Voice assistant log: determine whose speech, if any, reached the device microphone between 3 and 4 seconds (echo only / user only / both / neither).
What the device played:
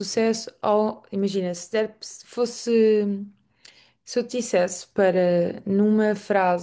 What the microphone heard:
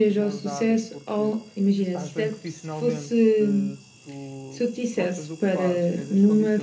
both